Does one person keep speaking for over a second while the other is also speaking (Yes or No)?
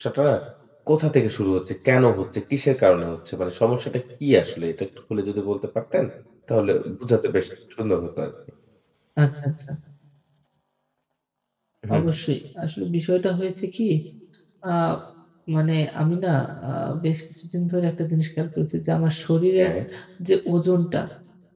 No